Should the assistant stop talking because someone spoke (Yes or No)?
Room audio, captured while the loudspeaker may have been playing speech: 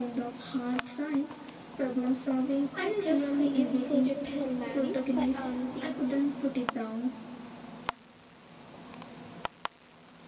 Yes